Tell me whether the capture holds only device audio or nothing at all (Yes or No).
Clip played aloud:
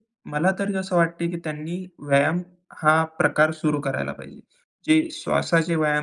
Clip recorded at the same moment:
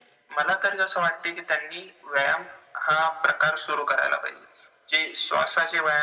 Yes